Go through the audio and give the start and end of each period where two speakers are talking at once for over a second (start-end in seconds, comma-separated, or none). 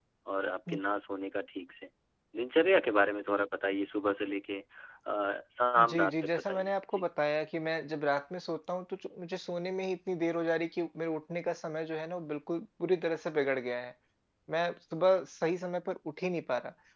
5.8-7.0